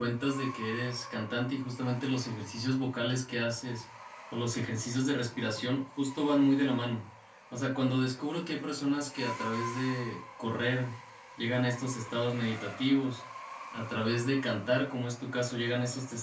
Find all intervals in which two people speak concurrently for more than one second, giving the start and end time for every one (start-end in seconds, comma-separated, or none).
none